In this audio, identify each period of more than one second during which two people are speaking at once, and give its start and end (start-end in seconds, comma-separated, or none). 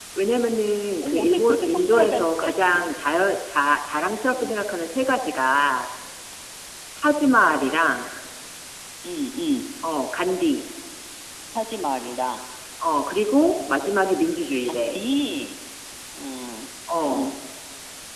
1.0-2.8